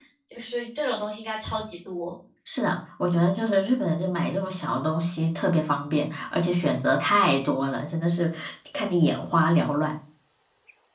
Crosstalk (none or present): none